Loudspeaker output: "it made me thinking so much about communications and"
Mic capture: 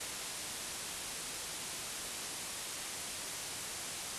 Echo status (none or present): none